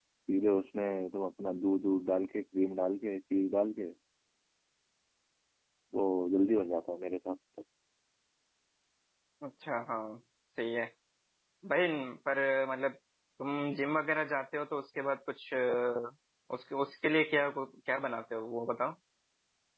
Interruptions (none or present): none